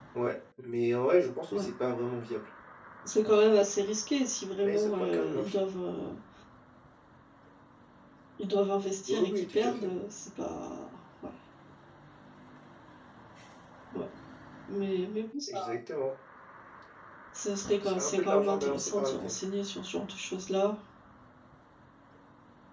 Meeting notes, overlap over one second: present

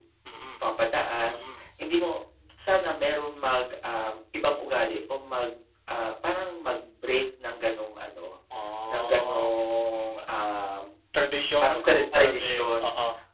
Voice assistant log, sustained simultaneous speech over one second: present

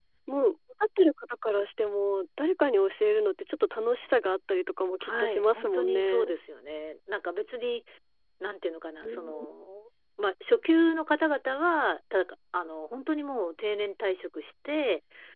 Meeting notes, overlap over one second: present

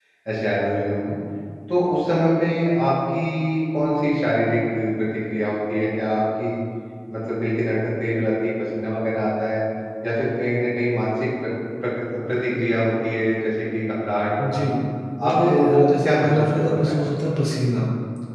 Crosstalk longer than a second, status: present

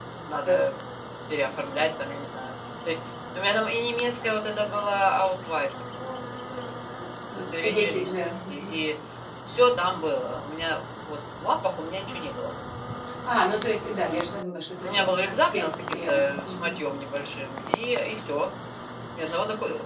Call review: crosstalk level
present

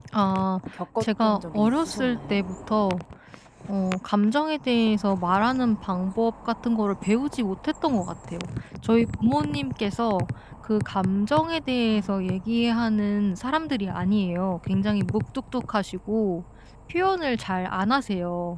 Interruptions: present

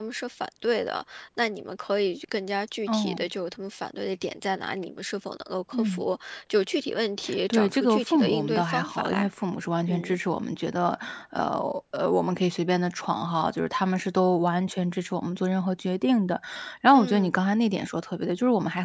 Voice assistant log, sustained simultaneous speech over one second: present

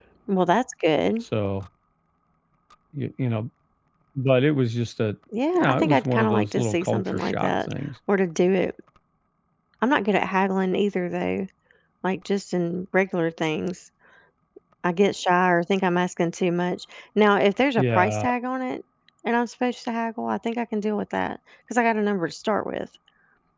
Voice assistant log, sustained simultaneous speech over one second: present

